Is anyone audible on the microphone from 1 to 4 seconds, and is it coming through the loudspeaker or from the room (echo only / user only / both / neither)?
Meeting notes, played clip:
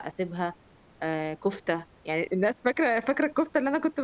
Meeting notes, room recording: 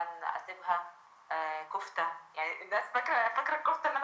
echo only